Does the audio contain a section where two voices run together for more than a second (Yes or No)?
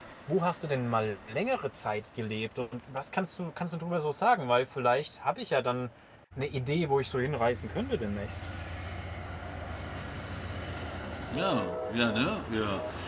No